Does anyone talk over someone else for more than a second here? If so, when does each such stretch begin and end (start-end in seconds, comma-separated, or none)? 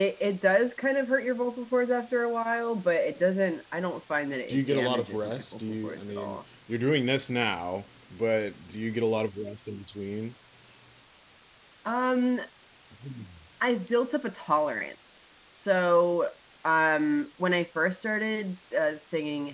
4.5-6.4